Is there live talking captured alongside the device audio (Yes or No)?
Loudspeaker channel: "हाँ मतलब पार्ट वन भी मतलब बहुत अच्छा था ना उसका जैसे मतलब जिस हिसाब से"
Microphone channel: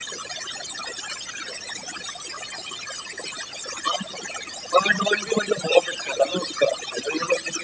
No